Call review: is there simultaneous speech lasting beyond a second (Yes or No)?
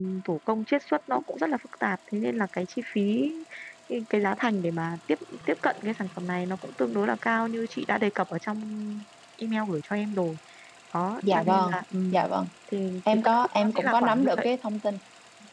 Yes